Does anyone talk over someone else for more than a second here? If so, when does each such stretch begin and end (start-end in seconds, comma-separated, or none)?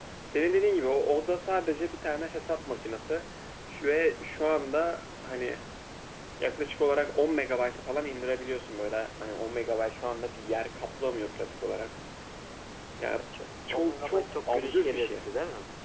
13.7-15.2